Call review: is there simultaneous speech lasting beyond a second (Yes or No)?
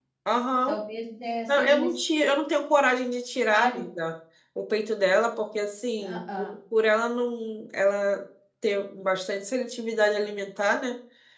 No